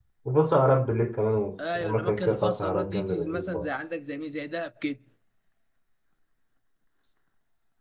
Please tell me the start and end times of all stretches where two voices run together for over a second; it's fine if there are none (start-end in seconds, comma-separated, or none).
1.8-3.7